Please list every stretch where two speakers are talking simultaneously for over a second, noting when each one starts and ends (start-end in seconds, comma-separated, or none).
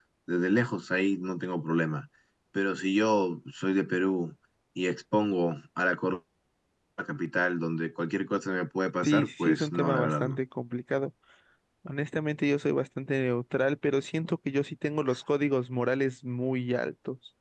9.0-10.4